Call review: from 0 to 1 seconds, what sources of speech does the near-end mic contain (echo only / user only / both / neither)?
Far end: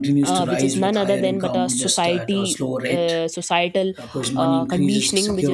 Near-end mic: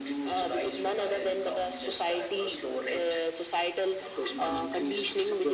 echo only